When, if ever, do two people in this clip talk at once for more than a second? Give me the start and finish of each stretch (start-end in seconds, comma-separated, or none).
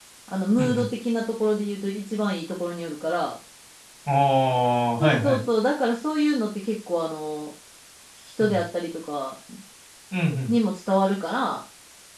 none